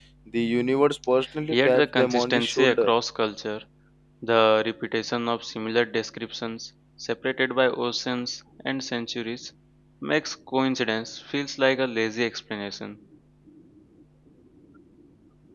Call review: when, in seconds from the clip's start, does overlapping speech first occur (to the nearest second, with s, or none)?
2 s